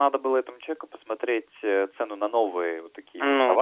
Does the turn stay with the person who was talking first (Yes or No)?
Yes